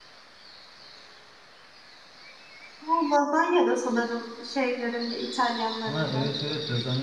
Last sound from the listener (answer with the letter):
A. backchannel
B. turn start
B